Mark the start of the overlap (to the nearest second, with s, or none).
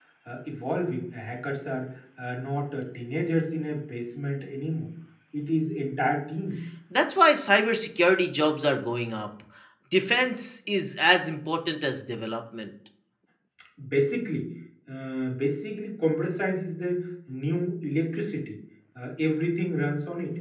none